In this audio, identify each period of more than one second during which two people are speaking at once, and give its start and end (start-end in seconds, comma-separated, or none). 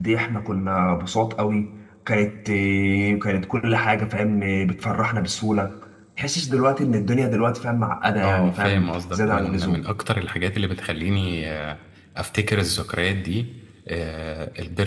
8.2-9.9